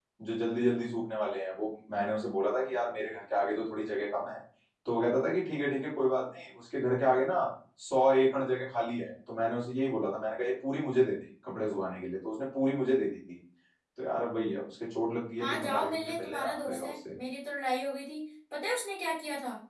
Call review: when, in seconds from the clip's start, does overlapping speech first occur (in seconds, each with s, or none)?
15.4 s